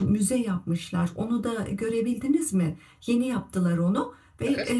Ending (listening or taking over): listening